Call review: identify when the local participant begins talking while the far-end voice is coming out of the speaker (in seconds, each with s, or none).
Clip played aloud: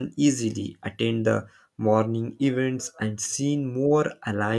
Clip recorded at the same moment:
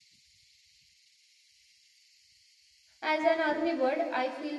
3.0 s